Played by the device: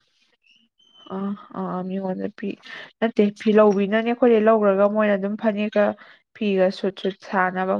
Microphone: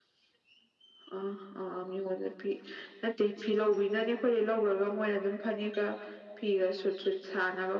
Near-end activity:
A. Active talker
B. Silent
B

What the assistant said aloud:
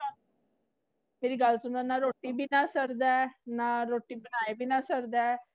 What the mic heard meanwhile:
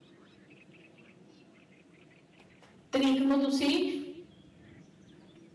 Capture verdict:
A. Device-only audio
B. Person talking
B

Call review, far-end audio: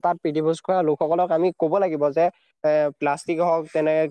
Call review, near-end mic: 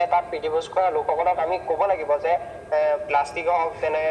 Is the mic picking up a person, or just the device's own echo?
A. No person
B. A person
A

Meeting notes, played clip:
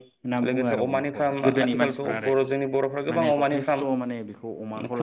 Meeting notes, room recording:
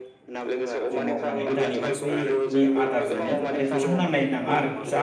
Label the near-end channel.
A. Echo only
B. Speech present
B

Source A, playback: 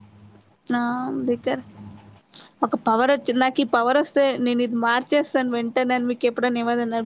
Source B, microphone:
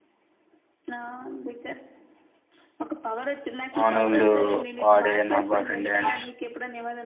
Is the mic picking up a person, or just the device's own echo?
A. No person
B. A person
B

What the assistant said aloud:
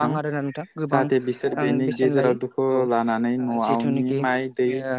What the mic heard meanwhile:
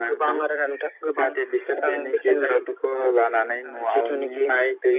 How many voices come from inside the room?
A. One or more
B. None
B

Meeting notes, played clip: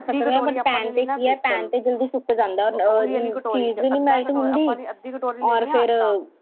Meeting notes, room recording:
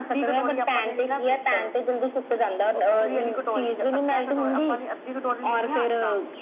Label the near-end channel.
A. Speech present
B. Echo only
B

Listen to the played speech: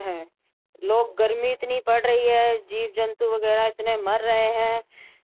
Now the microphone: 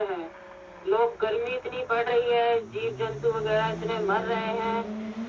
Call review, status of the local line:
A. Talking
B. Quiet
B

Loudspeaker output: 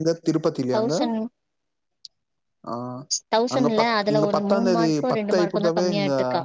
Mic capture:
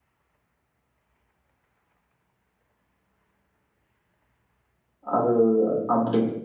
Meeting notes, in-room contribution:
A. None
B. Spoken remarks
B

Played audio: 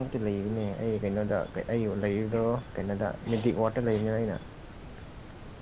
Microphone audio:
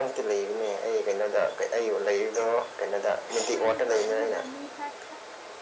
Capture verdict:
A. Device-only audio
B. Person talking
B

